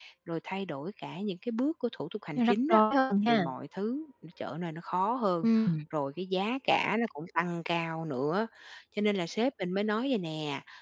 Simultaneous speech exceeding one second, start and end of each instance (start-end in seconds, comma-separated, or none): none